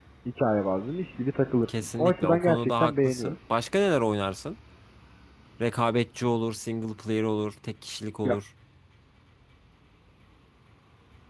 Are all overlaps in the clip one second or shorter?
No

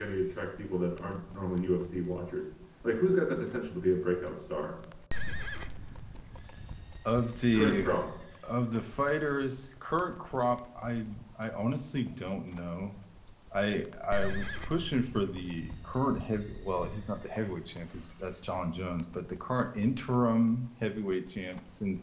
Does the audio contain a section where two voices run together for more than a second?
No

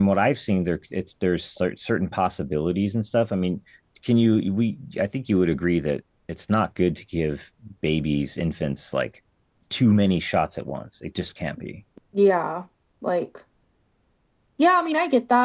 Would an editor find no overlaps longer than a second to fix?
Yes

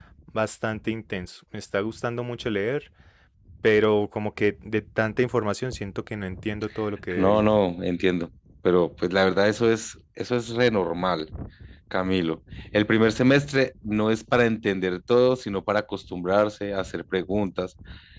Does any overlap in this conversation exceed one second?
No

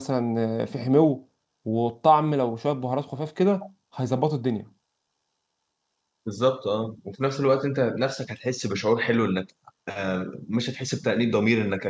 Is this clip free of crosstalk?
Yes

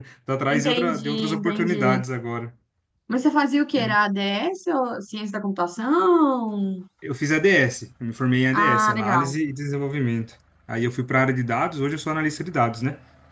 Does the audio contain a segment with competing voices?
Yes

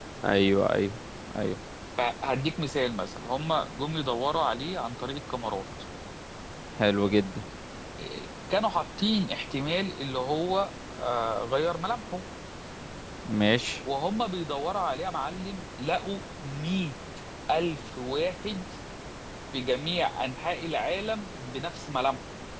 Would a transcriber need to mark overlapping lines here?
No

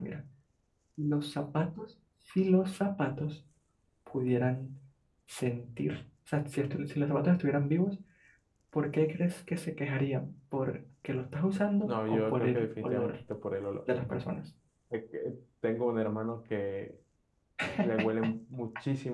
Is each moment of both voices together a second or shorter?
No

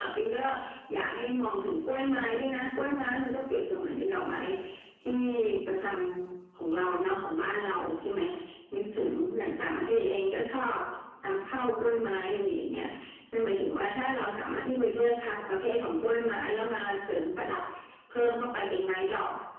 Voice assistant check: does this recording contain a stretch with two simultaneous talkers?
No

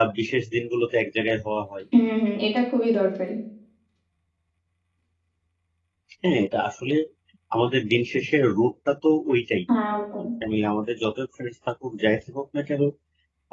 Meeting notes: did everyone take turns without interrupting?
Yes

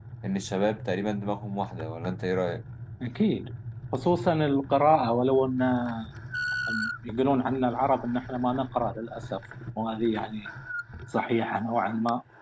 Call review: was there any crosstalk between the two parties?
No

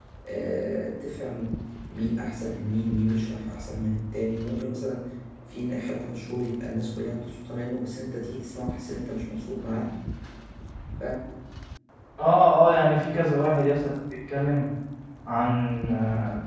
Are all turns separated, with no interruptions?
Yes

